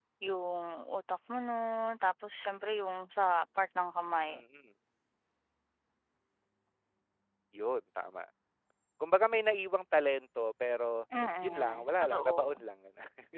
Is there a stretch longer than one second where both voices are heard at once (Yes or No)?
Yes